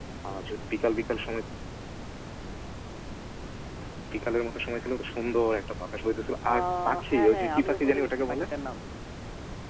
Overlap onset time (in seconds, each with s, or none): 6.4 s